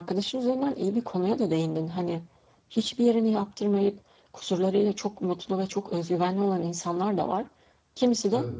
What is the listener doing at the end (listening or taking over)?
listening